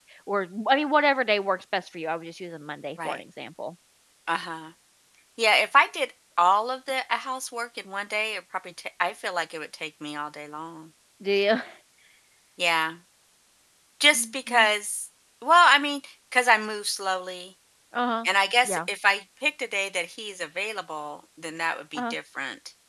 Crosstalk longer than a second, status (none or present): none